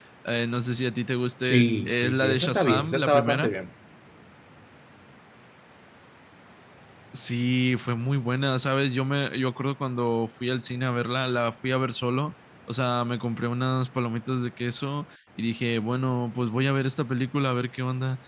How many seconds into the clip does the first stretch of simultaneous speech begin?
1.4 s

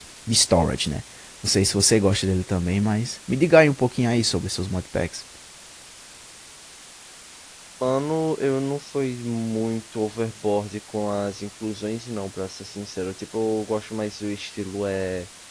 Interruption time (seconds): none

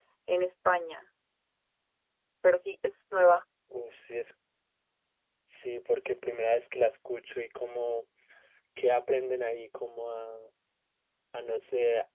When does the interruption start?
none

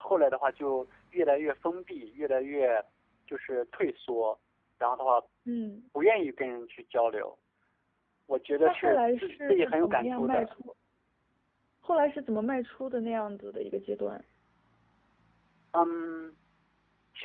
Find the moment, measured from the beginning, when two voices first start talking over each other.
8.6 s

